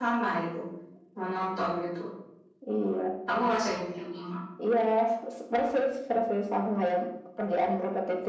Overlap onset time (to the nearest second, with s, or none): none